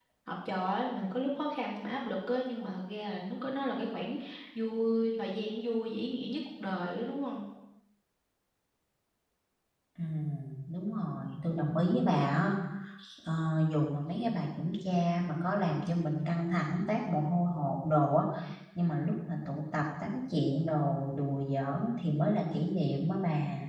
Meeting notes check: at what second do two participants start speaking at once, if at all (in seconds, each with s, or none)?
none